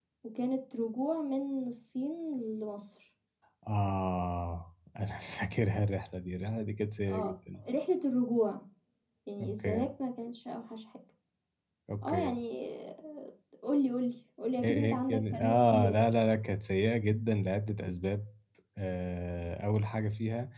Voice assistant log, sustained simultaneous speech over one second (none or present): present